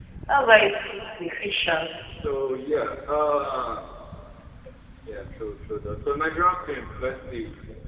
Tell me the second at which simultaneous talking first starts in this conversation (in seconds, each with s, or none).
none